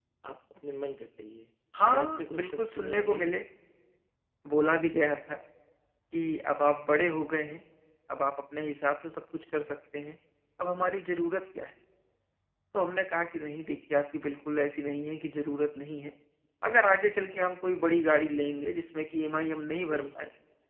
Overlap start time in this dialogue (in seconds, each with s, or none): 1.7 s